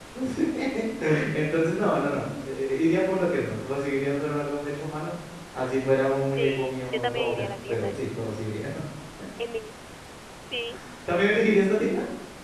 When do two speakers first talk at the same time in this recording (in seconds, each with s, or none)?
6.4 s